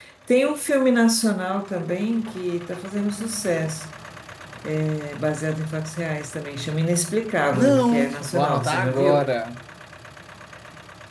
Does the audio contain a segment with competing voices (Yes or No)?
Yes